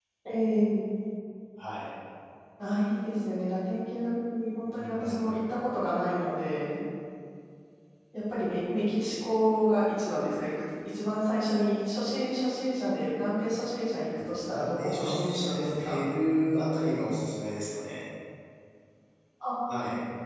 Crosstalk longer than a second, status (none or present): present